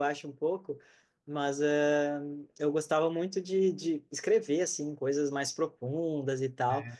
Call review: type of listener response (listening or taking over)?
listening